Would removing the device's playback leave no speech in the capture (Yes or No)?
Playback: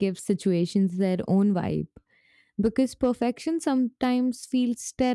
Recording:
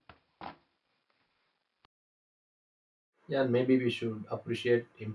No